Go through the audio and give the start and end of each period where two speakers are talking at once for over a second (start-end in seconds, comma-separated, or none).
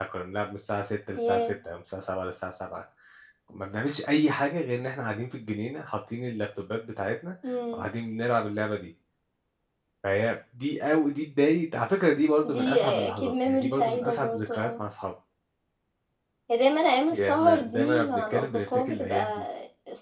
12.4-14.8, 17.1-19.4